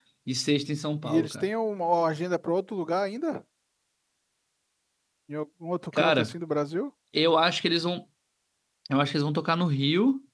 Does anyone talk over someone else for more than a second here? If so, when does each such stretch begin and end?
none

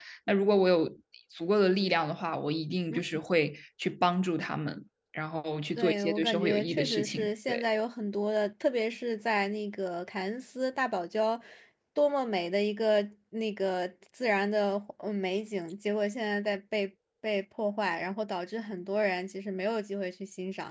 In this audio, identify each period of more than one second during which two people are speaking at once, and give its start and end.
5.8-7.7

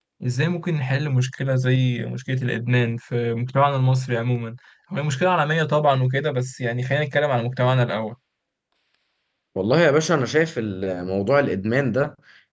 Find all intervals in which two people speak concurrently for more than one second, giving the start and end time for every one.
none

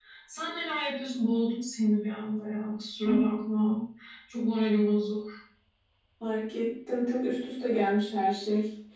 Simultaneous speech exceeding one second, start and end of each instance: none

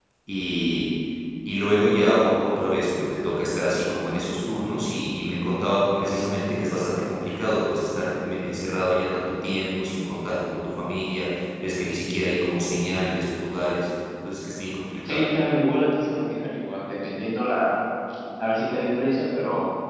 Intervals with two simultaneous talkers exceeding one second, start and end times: none

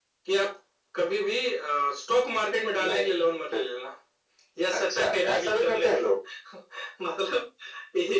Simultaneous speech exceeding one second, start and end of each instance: 4.8-6.2

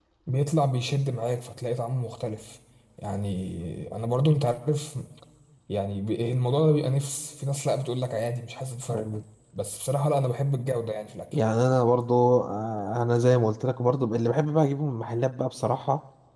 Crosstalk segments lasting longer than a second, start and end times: none

